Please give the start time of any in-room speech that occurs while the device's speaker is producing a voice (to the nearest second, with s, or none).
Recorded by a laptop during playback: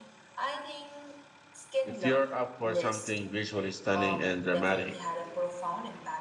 2 s